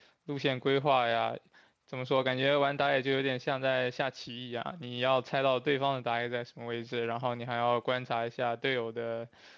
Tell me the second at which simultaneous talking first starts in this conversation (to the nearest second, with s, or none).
none